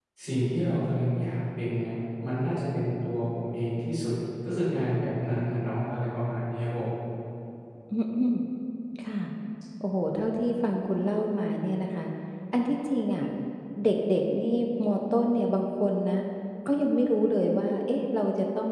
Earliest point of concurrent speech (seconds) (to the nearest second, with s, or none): none